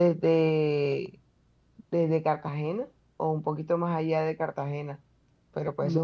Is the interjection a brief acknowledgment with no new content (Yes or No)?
No